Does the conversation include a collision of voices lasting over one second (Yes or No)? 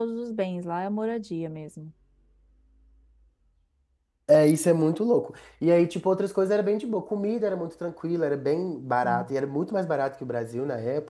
No